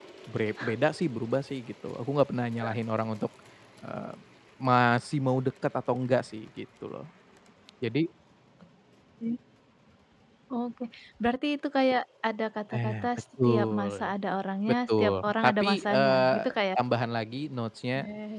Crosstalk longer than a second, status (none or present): present